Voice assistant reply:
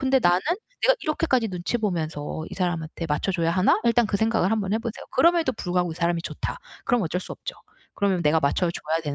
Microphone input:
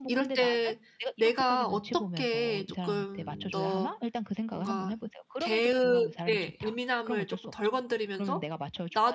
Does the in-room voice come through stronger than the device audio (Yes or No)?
Yes